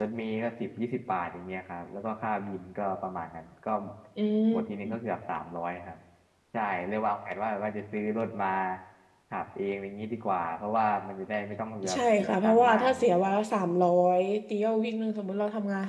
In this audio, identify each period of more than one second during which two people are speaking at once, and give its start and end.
11.9-13.3

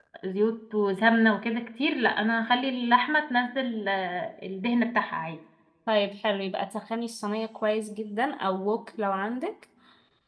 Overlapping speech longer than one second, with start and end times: none

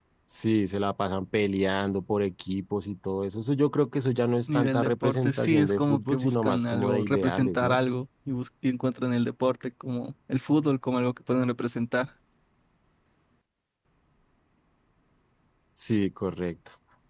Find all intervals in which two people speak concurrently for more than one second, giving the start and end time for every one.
4.5-7.8

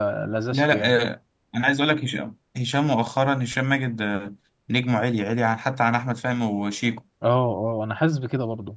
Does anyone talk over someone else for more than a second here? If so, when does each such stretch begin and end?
none

